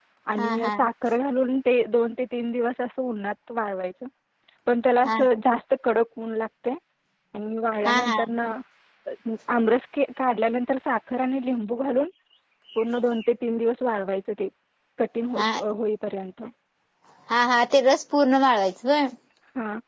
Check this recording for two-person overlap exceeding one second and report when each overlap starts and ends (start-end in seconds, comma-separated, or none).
none